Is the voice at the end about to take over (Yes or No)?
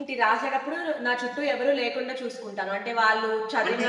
No